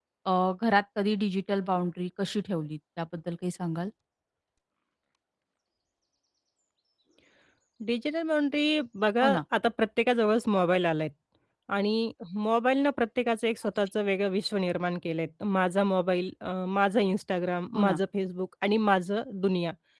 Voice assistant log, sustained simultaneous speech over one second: none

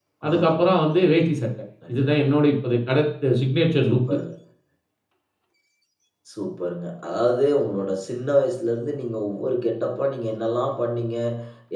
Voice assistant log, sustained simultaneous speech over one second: none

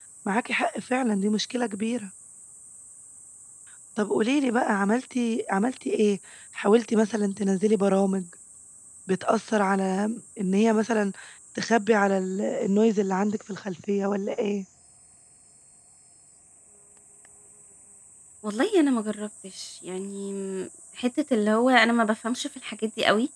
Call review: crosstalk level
none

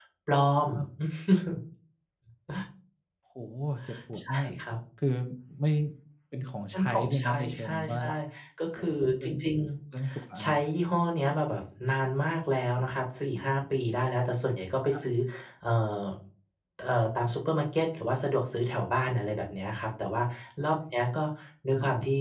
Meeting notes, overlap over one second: present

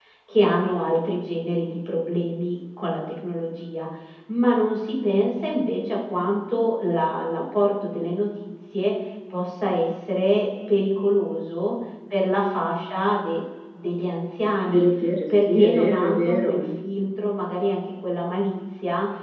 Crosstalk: present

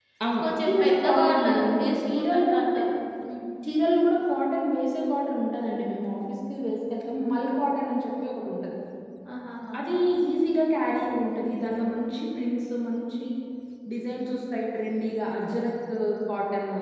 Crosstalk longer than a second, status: present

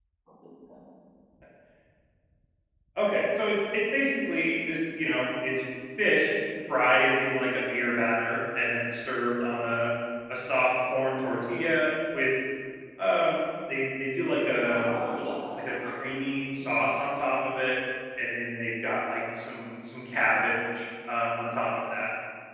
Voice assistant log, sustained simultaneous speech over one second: none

